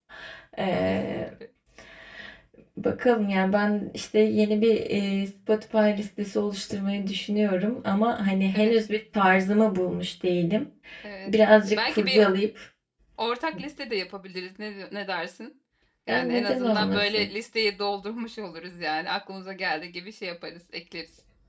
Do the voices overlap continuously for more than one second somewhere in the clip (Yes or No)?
Yes